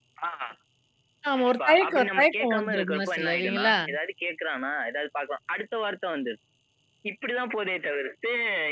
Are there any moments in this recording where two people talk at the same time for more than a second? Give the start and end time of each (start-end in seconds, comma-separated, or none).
1.4-3.7